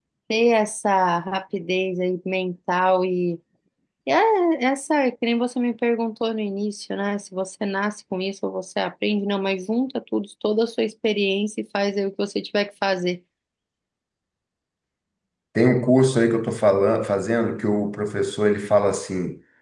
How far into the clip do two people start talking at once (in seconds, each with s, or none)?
none